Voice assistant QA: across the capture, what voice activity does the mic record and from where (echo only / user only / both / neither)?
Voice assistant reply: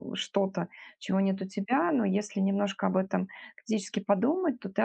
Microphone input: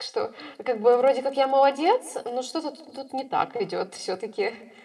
user only